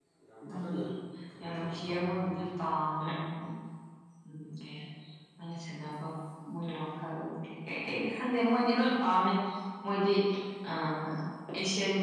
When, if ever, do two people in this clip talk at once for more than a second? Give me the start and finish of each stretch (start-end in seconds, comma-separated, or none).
1.4-2.8